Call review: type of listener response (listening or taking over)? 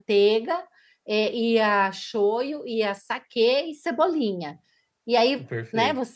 listening